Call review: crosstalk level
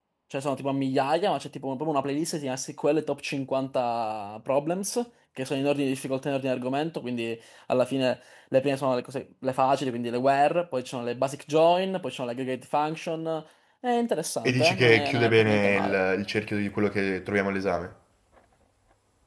present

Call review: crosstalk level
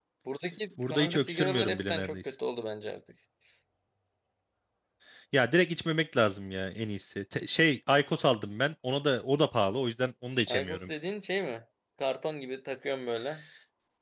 present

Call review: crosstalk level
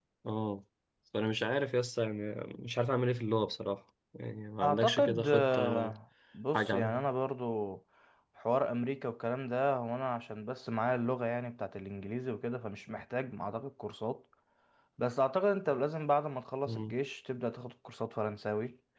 present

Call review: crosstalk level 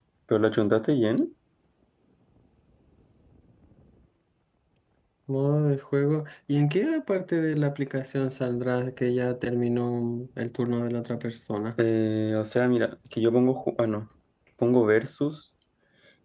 none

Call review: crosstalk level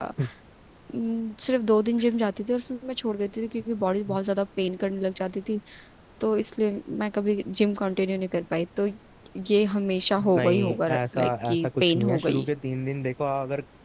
present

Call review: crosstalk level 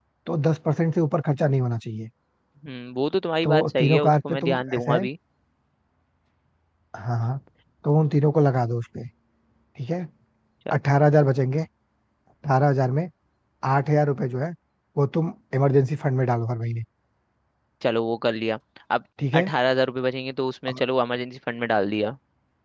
present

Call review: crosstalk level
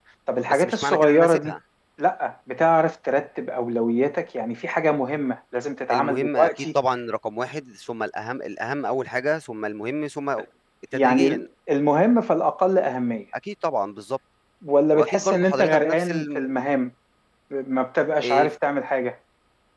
present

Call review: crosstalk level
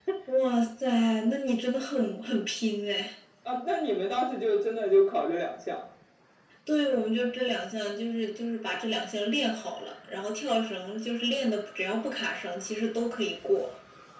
none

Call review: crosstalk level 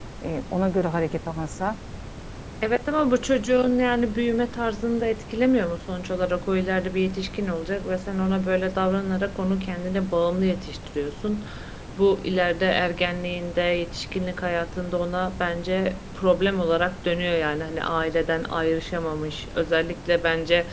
none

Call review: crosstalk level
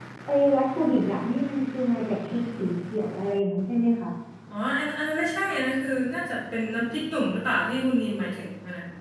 none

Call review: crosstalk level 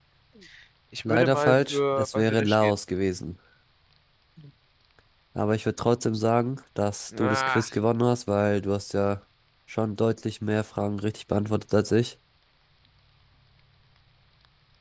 present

